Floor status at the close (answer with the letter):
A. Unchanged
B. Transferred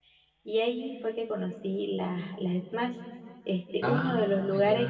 A